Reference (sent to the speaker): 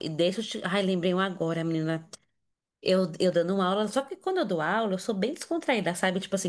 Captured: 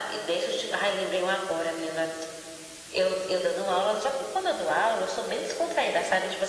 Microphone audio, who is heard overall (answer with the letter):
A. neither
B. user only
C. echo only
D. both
C